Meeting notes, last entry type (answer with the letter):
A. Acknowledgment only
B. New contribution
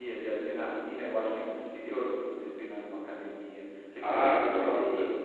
B